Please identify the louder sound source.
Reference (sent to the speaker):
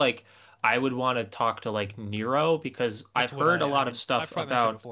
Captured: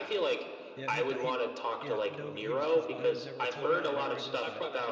echo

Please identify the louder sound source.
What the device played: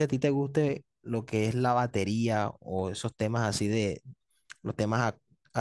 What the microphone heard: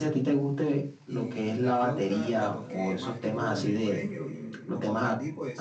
echo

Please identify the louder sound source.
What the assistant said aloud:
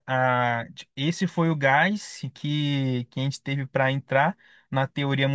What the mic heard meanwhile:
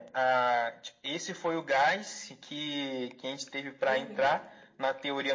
echo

